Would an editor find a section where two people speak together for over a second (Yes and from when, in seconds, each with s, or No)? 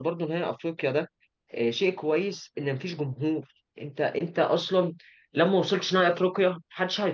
No